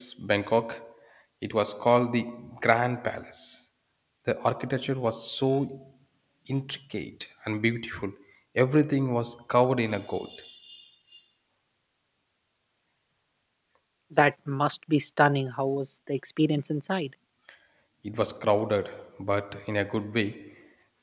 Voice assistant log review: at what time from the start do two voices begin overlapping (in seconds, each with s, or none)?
none